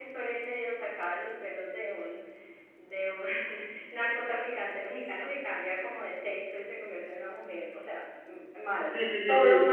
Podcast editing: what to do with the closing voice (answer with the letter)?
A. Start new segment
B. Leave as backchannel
A